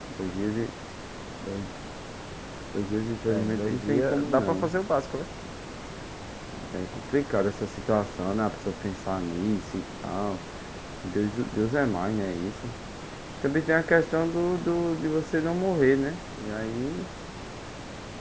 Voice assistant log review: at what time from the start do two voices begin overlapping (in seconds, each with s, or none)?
3.3 s